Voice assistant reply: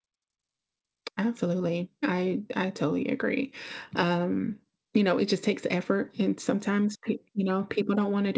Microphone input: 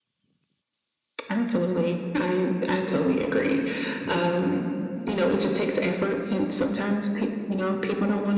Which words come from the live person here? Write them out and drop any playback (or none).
none